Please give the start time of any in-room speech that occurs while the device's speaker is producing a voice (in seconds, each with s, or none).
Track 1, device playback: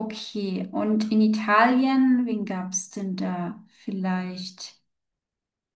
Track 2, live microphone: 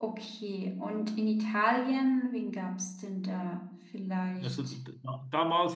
4.4 s